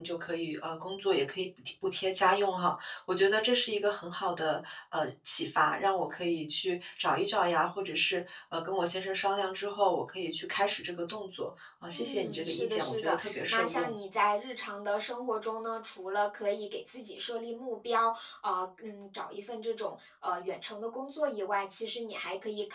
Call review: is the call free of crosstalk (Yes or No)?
No